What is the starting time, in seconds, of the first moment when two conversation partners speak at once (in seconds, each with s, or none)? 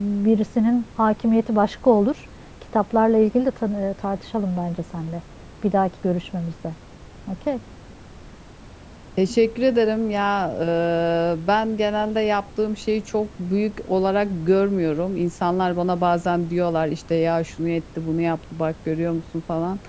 none